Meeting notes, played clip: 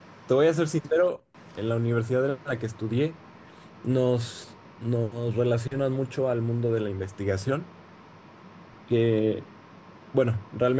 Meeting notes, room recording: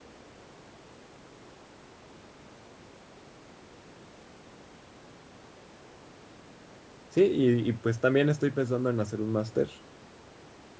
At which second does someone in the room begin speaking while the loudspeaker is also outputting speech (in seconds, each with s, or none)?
7.1 s